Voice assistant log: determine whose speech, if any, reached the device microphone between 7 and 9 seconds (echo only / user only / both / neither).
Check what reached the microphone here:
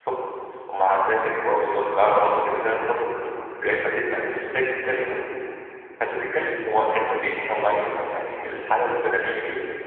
user only